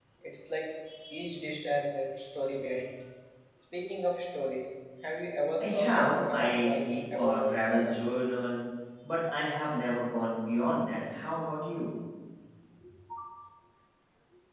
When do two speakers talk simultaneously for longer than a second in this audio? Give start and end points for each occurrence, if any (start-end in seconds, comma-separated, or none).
5.6-8.0